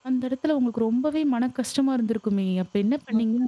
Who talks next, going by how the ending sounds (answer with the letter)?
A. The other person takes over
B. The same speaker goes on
A